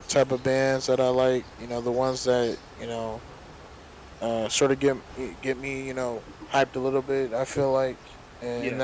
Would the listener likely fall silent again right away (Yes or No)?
Yes